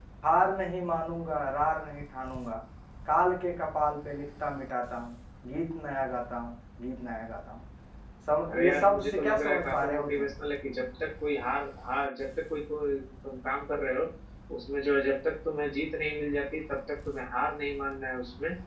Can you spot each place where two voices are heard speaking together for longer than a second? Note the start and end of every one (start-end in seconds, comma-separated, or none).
8.5-10.3